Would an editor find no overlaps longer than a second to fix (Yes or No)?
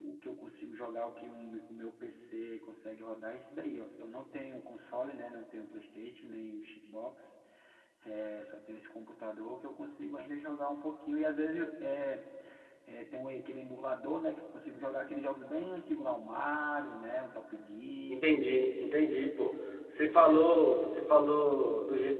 Yes